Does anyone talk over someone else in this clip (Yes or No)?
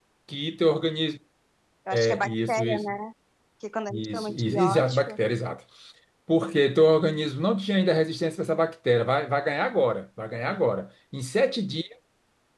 Yes